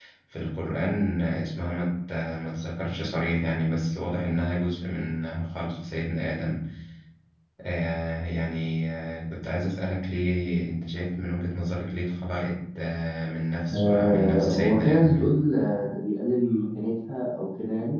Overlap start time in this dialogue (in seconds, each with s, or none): 13.7 s